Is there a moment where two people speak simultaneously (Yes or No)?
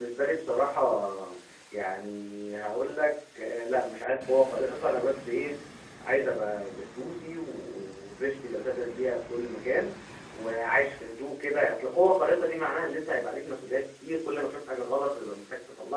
No